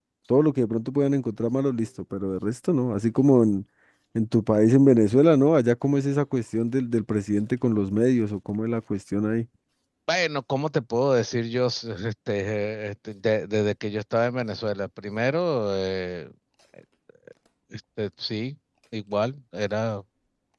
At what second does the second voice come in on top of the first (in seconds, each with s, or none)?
none